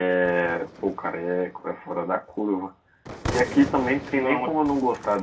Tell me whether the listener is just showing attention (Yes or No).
Yes